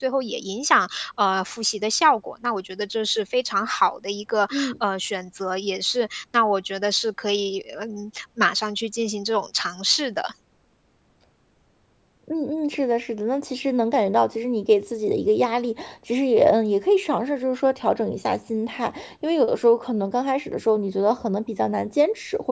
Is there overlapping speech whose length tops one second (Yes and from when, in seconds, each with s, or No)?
No